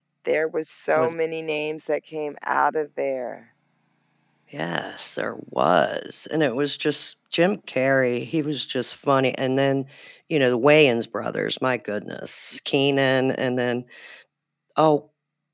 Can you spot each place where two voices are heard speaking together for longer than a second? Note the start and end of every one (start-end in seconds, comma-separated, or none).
none